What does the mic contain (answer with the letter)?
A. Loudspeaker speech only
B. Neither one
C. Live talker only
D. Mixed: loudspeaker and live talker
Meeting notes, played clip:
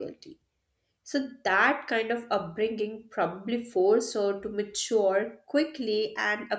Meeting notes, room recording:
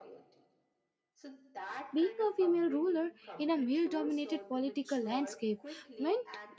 D